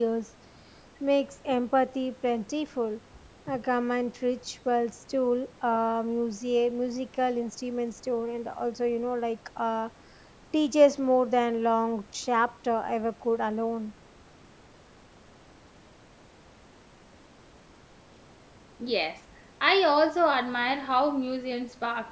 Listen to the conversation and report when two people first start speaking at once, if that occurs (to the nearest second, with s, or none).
none